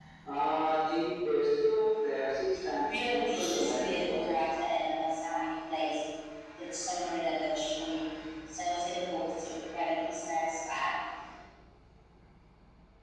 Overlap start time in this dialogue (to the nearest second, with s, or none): 3 s